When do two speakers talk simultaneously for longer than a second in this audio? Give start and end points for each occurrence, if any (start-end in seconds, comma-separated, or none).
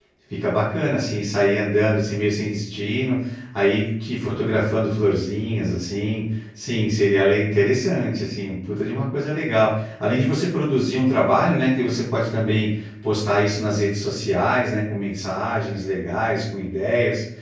none